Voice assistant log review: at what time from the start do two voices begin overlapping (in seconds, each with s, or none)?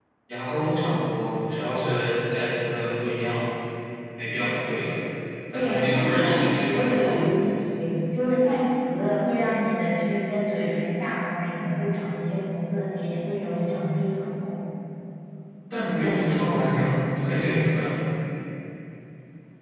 5.5 s